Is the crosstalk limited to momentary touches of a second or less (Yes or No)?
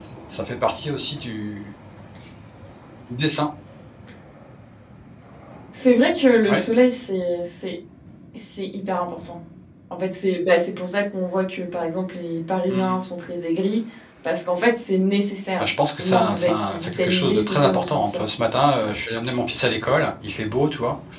No